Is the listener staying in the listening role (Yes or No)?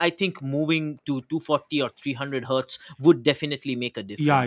No